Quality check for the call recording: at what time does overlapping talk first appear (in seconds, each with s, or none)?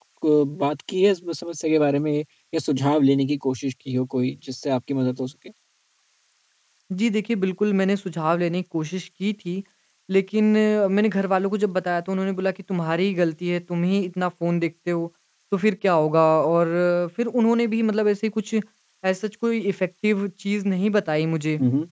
none